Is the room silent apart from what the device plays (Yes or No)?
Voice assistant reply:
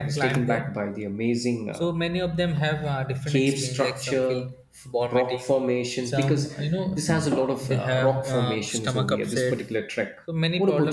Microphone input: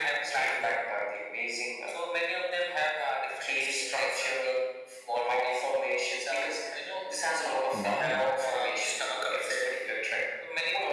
No